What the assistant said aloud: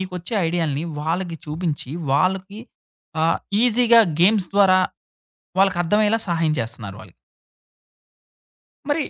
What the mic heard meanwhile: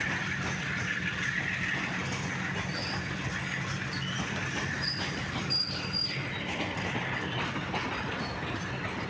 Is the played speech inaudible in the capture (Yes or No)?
Yes